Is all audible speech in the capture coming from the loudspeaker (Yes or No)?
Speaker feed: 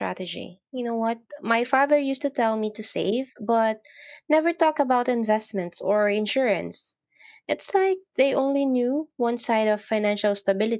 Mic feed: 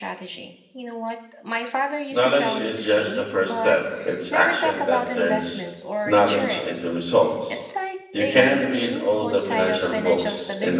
No